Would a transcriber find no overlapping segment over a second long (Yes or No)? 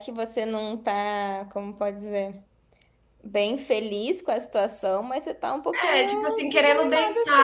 No